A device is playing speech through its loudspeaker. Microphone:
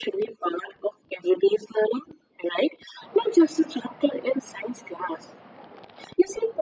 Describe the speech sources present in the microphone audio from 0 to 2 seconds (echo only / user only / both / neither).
echo only